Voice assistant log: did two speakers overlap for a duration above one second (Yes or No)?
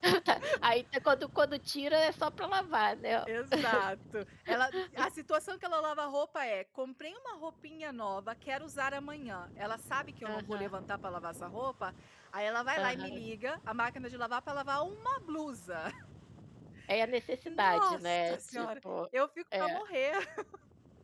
Yes